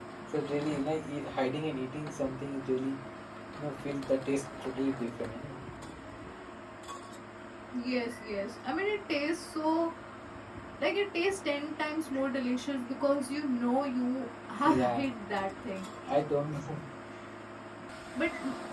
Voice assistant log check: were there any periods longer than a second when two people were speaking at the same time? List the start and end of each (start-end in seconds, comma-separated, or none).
none